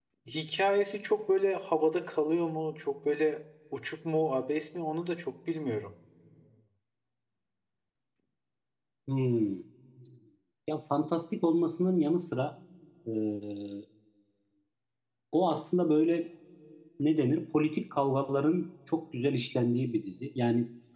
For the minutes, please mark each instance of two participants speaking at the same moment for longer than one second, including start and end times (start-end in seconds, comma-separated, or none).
none